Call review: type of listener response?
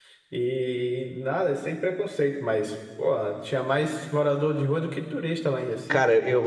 taking over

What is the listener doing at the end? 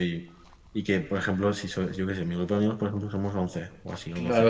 taking over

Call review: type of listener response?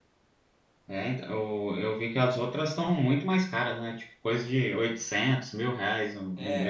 taking over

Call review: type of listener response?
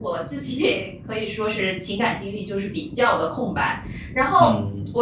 listening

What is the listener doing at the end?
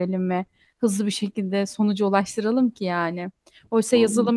listening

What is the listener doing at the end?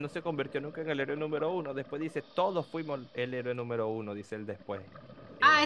taking over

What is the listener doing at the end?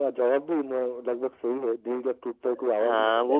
taking over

